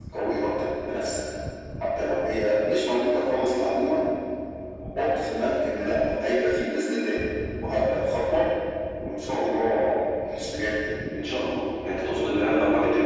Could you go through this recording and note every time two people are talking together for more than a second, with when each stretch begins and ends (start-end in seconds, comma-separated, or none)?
none